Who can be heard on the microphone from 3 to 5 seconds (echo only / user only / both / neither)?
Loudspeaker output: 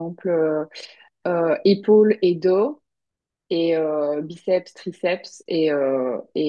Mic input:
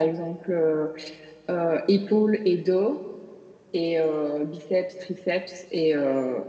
echo only